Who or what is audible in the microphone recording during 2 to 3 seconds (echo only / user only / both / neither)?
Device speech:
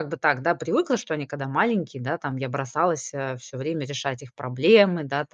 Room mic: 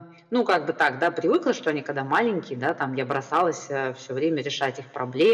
echo only